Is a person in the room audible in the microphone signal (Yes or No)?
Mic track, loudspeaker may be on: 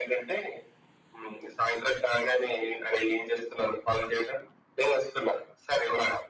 No